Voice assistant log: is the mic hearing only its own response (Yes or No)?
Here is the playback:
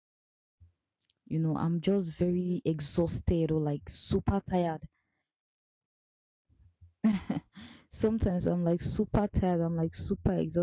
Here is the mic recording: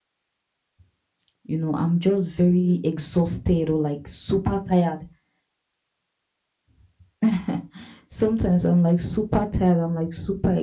Yes